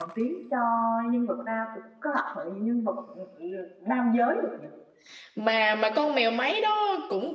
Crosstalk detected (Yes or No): No